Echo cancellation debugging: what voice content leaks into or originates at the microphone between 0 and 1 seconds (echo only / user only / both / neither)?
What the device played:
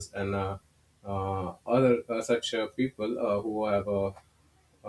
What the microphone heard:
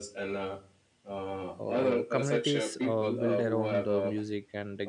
echo only